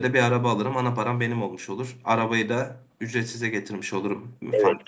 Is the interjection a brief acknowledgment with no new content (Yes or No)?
No